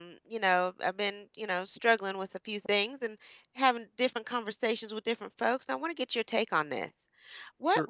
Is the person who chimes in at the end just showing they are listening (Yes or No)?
Yes